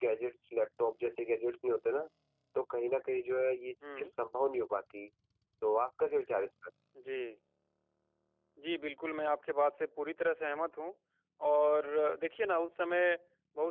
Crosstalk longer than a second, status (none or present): none